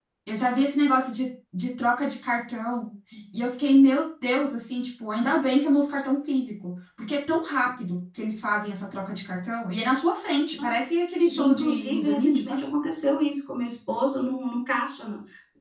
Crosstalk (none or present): present